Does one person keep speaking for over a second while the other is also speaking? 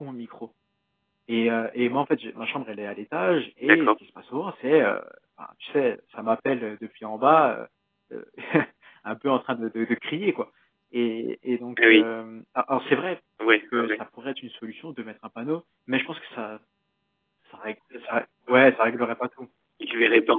No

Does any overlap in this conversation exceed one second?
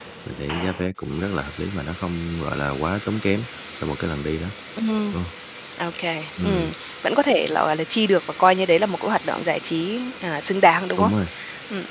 No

